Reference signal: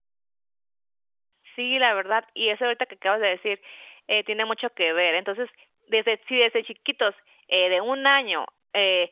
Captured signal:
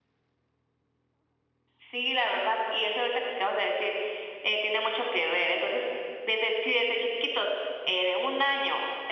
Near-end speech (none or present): none